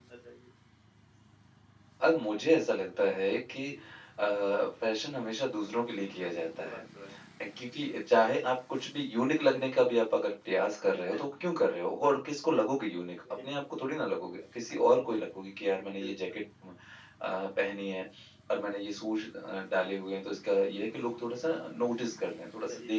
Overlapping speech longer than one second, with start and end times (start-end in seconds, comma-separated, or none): none